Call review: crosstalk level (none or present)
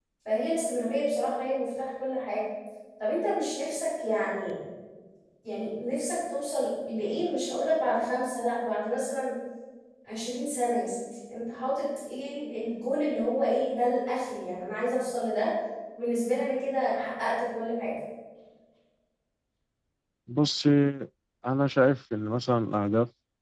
none